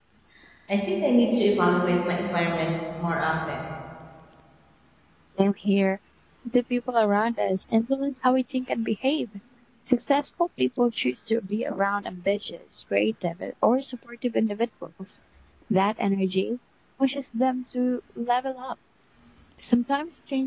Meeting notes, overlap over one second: none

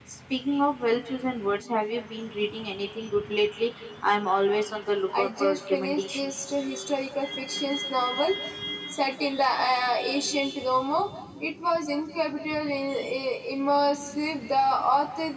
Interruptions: present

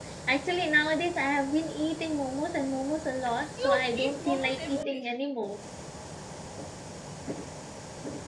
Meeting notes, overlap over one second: present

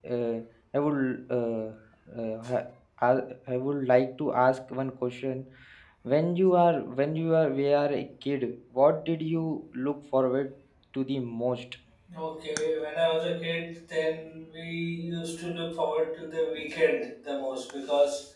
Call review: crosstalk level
none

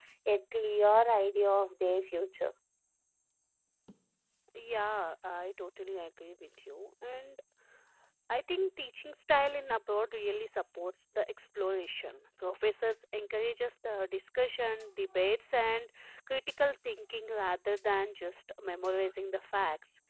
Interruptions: none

